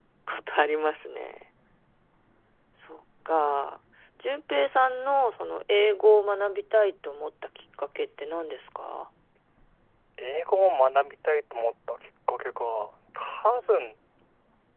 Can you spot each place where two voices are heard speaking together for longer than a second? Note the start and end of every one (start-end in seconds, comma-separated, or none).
none